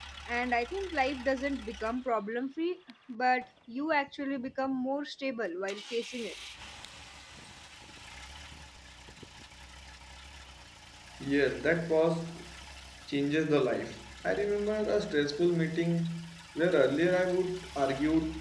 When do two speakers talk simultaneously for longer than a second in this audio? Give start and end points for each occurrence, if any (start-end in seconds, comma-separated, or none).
none